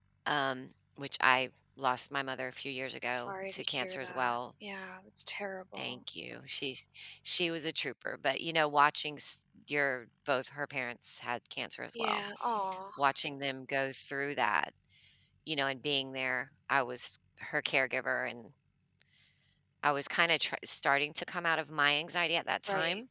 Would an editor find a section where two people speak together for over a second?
Yes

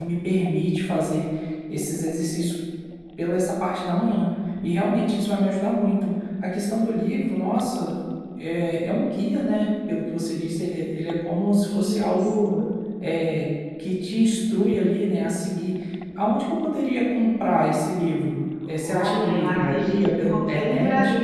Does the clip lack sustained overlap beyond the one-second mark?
No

